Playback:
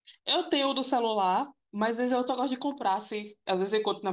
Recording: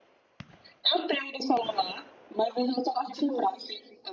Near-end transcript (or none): tipo,